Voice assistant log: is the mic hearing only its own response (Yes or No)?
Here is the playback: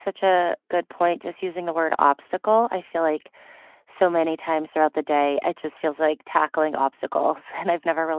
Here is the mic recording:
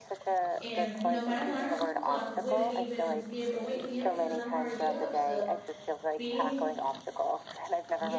No